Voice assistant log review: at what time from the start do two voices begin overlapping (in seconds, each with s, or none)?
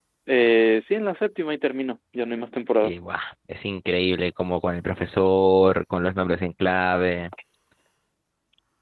none